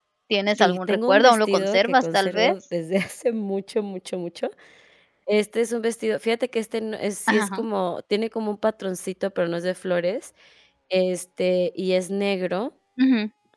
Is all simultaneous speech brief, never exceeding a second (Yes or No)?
No